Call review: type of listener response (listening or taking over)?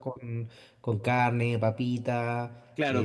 taking over